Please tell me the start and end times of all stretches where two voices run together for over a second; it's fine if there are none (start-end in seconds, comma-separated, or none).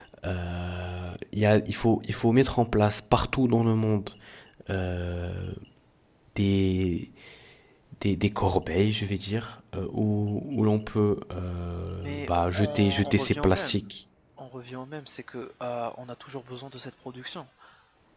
12.0-13.8